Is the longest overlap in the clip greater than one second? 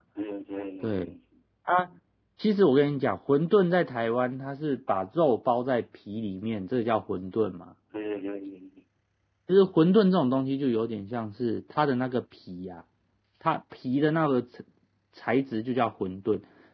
No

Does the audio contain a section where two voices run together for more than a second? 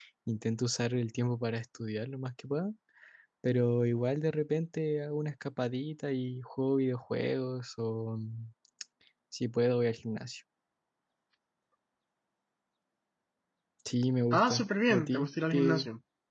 Yes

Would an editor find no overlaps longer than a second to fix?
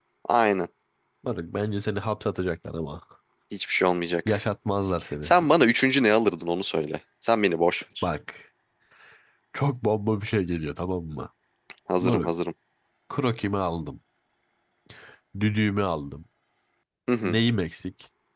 Yes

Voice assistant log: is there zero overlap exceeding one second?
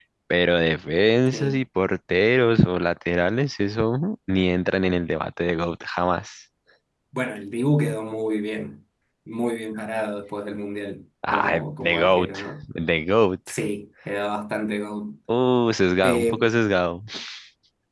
No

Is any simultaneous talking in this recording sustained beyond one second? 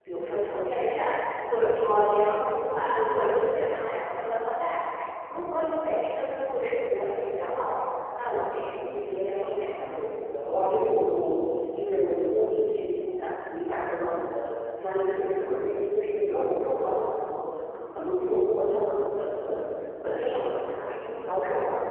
Yes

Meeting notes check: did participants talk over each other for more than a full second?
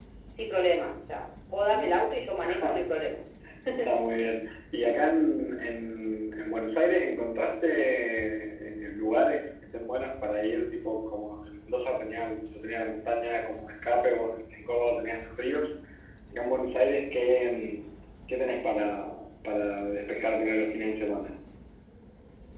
No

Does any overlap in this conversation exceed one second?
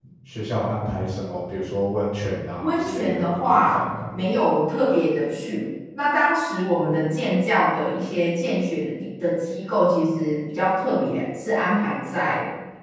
Yes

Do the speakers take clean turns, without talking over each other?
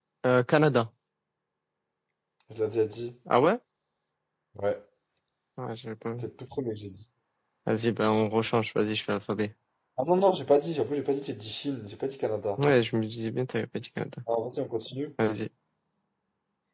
Yes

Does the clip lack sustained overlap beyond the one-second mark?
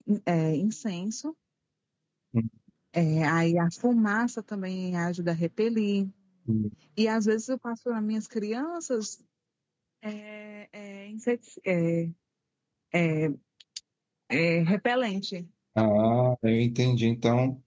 Yes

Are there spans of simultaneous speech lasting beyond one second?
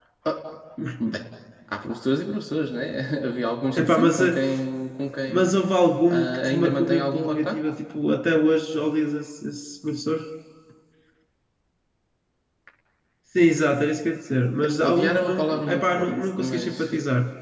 Yes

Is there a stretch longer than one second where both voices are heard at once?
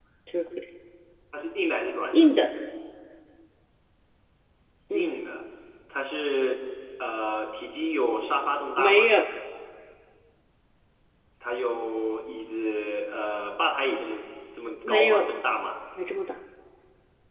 No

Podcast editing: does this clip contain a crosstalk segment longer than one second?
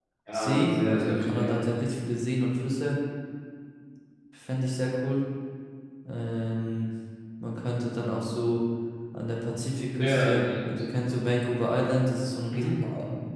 Yes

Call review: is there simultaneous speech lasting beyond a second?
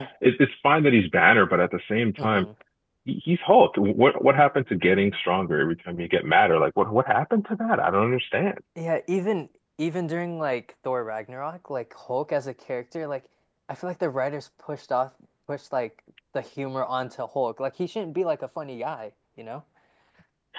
No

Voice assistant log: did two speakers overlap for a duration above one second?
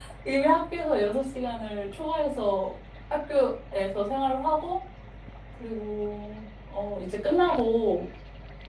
No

